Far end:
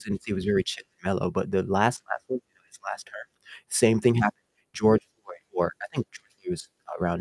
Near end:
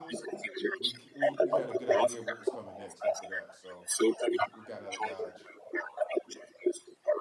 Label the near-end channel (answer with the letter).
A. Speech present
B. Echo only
A